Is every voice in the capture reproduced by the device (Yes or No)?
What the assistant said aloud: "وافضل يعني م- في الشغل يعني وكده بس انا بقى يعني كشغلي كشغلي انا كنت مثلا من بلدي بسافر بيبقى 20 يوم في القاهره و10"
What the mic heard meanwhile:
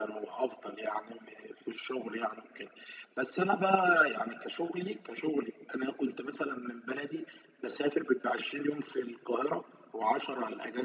Yes